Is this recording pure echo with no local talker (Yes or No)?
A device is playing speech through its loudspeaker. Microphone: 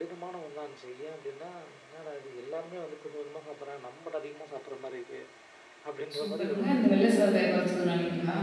No